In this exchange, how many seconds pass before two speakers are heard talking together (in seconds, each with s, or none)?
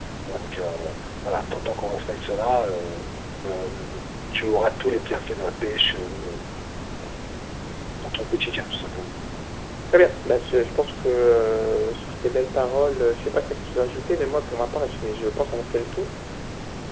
none